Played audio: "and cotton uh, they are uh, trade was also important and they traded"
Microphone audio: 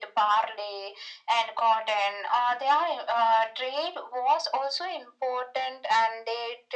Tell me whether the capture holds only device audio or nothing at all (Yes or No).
Yes